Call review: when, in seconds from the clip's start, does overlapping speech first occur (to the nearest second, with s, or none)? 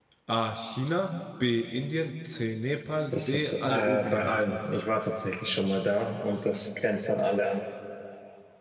3 s